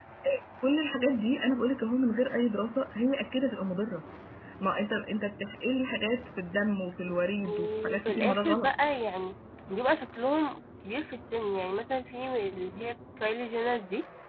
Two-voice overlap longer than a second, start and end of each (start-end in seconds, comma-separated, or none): 7.4-8.7